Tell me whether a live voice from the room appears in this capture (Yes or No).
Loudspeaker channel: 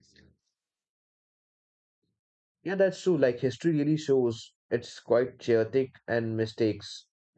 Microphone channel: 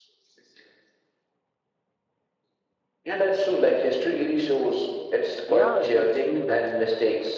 Yes